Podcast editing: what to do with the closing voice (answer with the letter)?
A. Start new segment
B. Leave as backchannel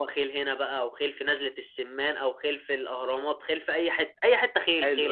A